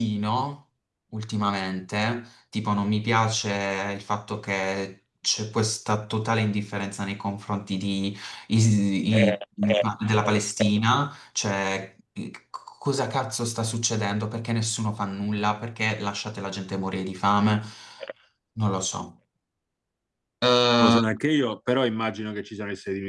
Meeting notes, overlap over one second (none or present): none